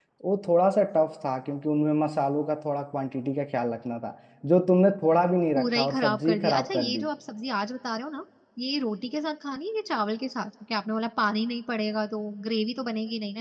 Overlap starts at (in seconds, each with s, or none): 5.6 s